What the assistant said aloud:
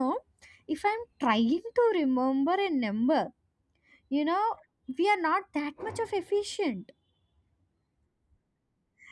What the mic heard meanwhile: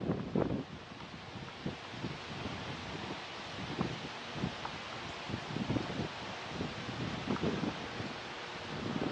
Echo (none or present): none